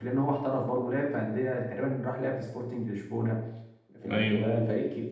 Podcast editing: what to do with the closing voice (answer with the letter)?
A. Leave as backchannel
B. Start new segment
A